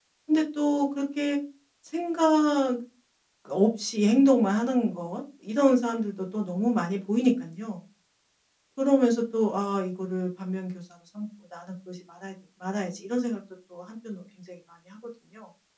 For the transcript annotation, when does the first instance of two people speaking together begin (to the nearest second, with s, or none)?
none